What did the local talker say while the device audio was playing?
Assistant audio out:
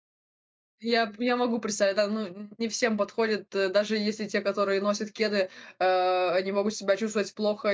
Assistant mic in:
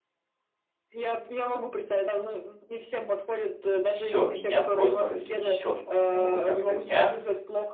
и всё- меня просто разнесет потом. Я могу в конце дня,

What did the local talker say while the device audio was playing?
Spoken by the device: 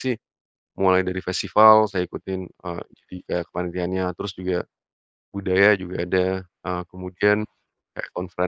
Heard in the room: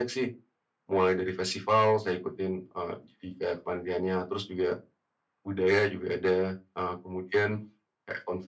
none

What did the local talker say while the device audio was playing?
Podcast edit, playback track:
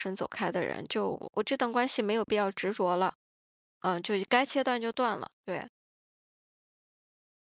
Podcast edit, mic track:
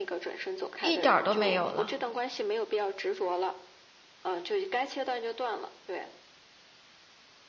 一点儿都没有了。

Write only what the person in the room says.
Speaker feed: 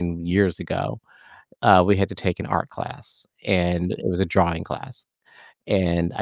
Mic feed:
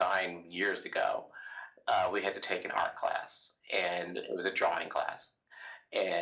none

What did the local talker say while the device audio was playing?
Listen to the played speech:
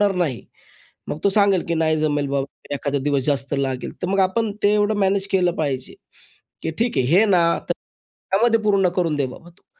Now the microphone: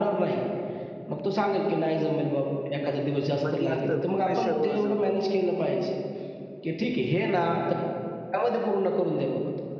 म्हणजे असं प्रेशरवर जो होतं.

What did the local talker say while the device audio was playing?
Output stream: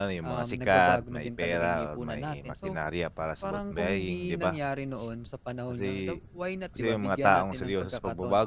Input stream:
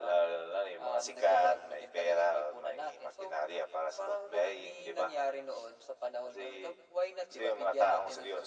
none

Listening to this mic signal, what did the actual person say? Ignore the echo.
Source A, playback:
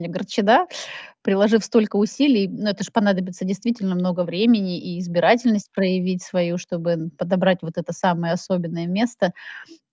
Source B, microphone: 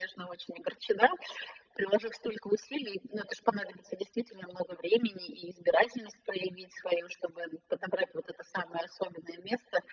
none

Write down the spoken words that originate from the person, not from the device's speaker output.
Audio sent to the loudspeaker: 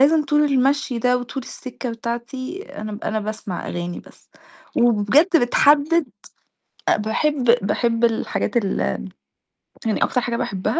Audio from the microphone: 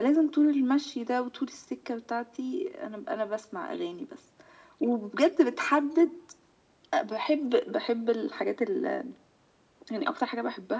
none

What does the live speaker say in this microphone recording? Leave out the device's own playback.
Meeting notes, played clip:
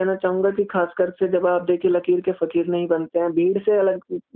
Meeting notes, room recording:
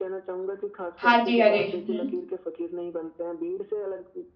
हाँ जी, हाँ जी। हुँ।

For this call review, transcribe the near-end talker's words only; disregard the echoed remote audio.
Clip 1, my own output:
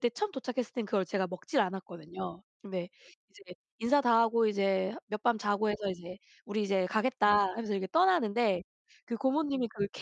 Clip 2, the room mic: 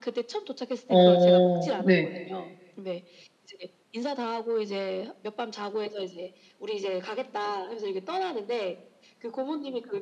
어. 네.

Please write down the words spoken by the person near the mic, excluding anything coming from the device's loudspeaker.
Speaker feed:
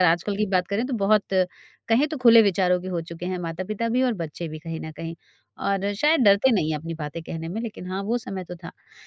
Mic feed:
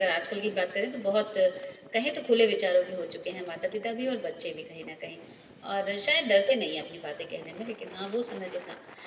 none

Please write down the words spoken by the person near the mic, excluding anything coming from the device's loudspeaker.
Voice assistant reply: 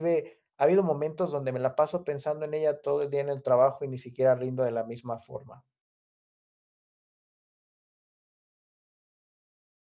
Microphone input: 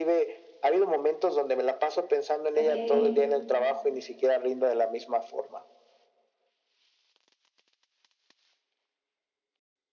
Okey.

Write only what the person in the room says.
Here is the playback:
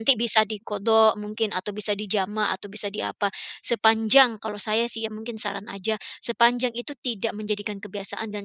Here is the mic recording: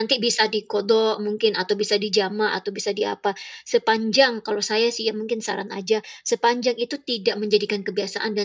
none

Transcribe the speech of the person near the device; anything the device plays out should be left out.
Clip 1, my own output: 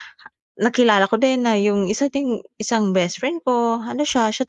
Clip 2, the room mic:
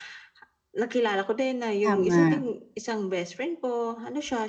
Tama.

